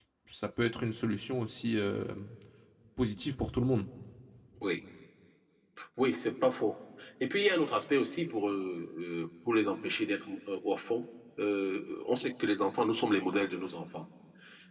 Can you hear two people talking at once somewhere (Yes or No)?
No